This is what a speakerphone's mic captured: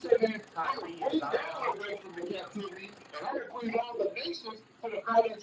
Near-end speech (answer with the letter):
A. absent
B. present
B